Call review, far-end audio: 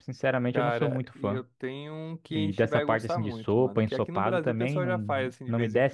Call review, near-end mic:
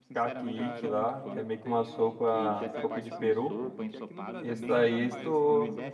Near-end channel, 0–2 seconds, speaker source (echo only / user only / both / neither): both